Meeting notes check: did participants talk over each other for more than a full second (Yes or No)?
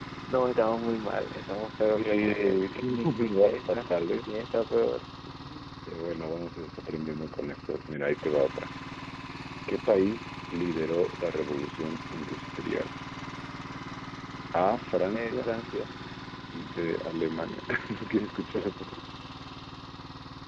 Yes